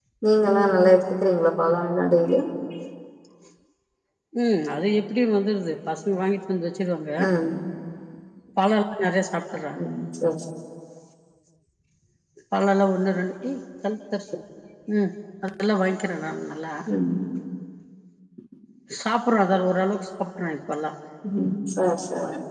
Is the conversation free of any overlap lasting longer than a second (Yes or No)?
Yes